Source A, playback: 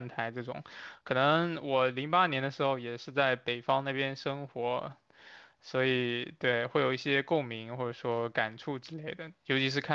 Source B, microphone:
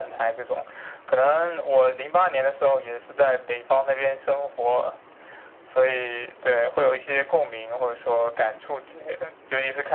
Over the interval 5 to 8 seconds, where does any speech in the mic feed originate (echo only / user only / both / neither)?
echo only